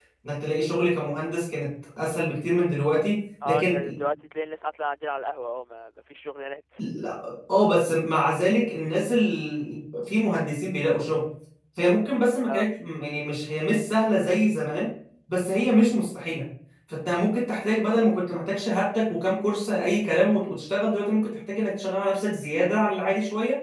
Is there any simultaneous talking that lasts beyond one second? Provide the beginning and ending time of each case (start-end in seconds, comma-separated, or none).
none